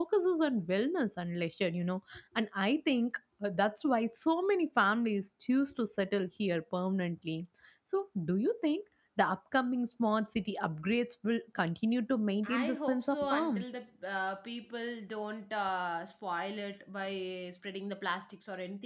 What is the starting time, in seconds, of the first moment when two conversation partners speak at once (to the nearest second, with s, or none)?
12 s